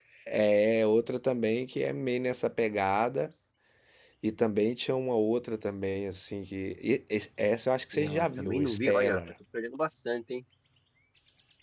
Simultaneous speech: Yes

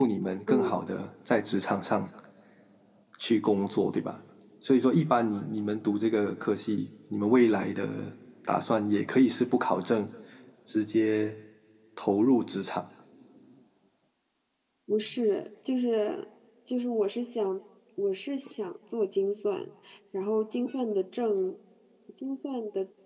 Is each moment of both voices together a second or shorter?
Yes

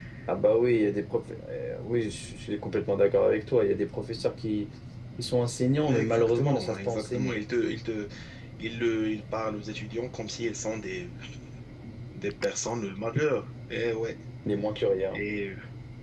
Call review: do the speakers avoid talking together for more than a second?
No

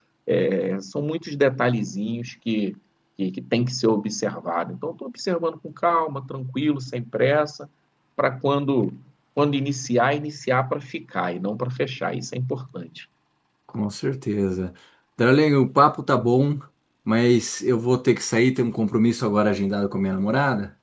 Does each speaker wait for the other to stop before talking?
Yes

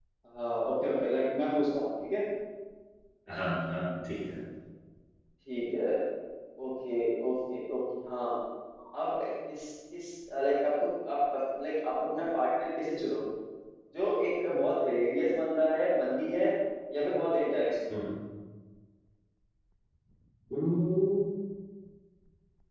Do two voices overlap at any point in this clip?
No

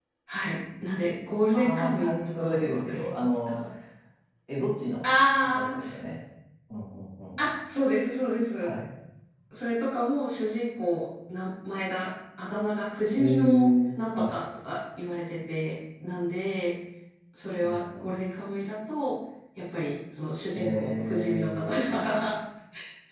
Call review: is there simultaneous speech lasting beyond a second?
Yes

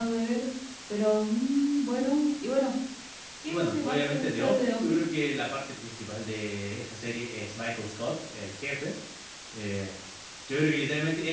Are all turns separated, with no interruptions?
No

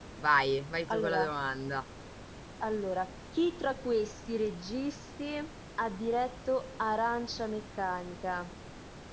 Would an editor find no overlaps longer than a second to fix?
Yes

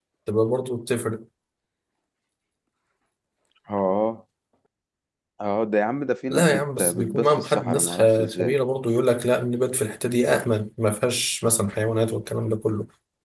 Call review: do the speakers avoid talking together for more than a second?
No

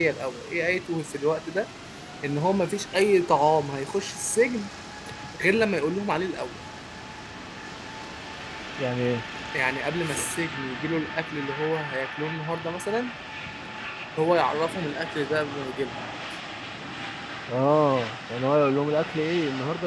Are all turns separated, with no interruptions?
Yes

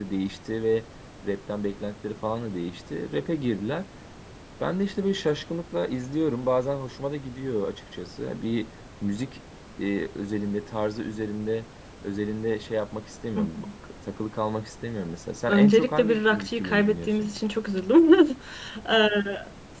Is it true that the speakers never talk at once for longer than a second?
No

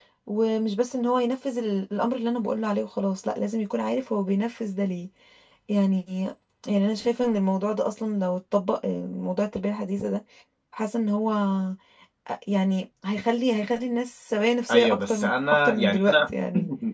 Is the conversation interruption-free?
No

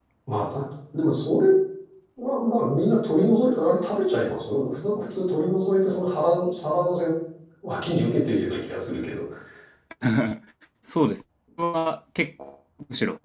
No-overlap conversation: Yes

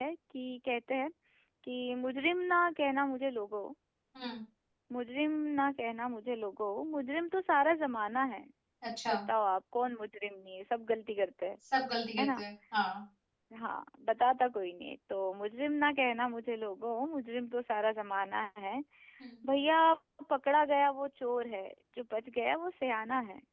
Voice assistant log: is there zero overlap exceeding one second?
Yes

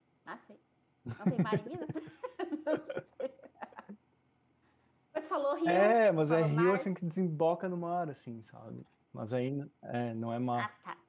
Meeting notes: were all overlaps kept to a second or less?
No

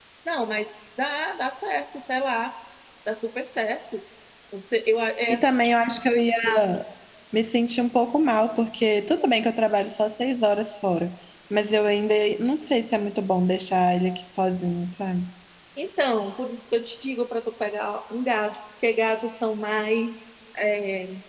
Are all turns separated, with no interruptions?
Yes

